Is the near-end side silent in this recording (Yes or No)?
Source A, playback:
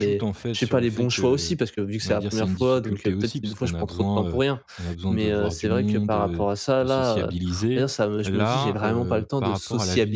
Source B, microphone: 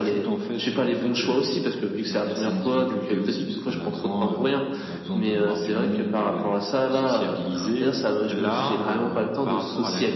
Yes